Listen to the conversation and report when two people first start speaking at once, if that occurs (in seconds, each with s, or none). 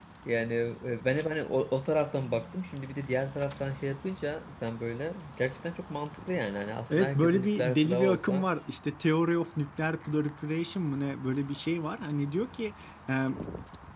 6.9 s